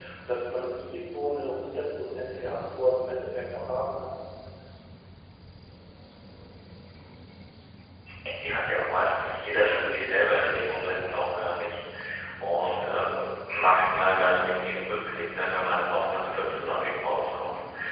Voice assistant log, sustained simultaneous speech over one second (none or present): none